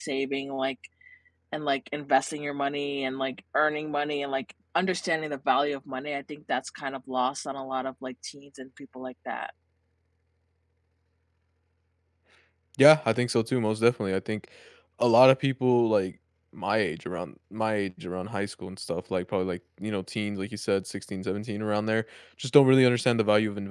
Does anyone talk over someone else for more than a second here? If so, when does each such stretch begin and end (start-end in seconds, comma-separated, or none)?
none